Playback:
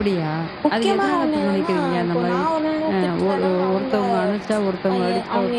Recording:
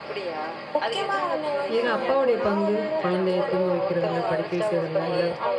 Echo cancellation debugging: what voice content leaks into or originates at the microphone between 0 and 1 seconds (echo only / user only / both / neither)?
echo only